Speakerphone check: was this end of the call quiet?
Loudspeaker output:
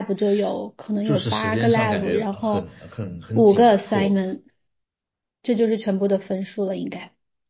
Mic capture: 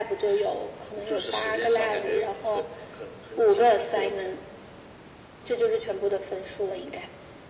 Yes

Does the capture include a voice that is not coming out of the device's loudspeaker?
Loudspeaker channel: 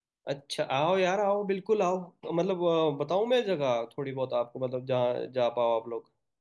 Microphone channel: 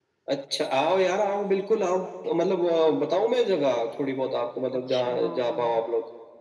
Yes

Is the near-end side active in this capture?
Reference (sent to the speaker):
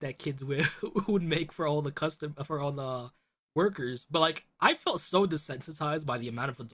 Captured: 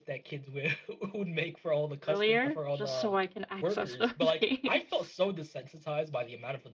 Yes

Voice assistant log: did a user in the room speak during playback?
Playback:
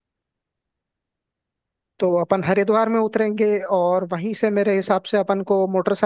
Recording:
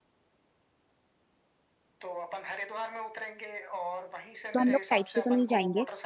Yes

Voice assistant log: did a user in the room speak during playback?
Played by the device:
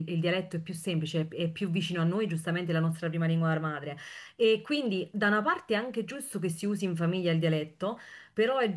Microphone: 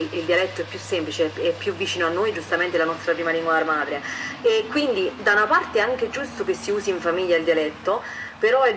No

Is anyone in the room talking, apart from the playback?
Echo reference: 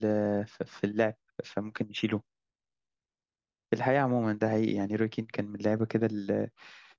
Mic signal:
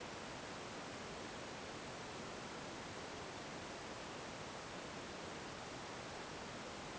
No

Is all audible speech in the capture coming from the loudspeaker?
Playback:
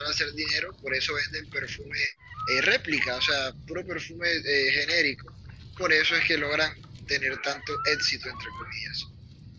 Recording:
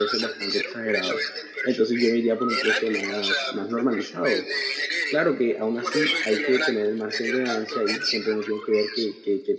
No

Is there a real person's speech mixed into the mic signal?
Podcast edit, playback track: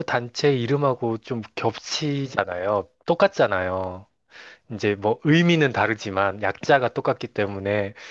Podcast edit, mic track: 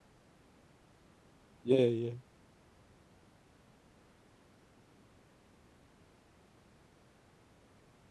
Yes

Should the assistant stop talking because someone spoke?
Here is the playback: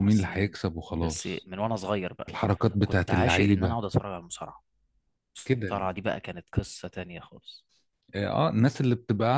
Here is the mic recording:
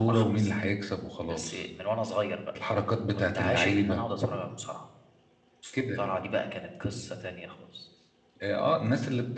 No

